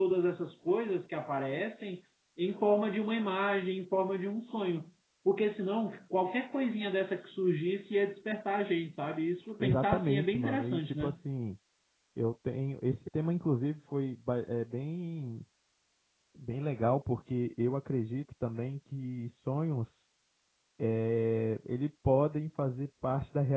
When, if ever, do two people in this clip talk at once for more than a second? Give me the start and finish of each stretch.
9.6-11.1

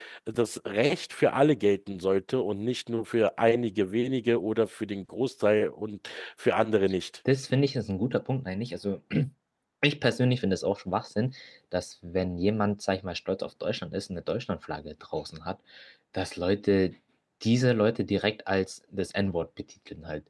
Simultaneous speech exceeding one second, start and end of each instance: none

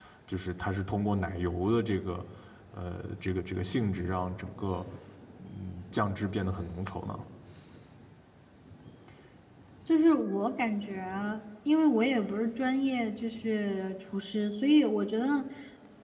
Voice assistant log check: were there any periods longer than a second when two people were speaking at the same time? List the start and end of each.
none

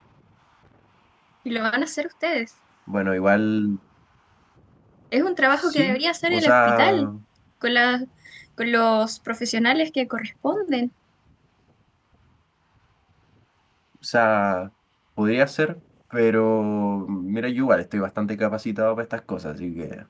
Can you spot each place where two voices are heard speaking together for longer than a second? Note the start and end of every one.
5.6-7.1

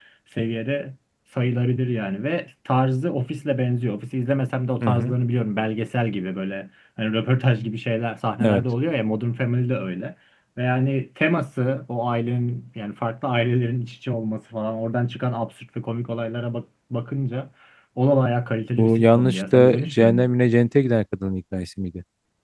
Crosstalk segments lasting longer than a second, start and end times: 18.8-20.3

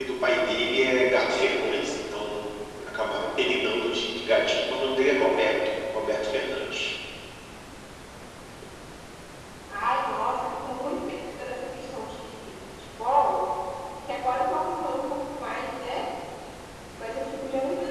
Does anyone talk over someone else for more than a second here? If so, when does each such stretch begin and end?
none

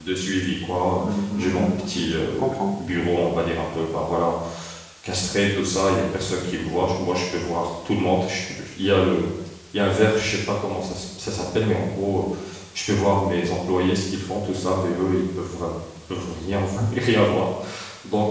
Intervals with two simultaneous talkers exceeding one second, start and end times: 1.0-2.8

